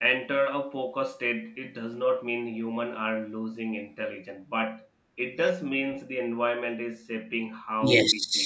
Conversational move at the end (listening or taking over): taking over